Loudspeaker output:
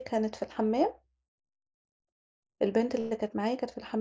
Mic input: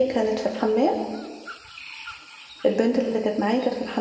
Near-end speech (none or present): none